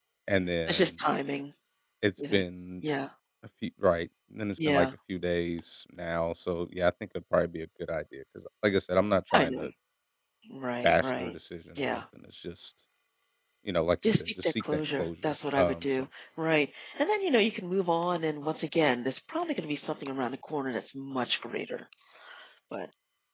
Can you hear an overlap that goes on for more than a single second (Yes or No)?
Yes